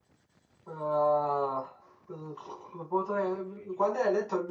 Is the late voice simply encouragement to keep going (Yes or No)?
Yes